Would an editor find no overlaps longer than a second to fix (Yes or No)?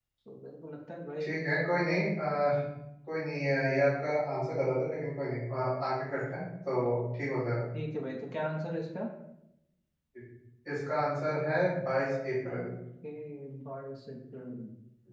Yes